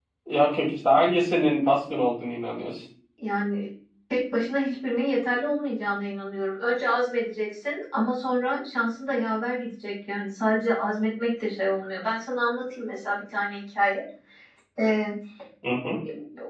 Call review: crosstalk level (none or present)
none